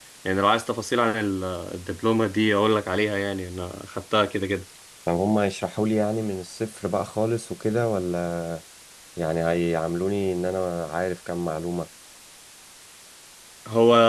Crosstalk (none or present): none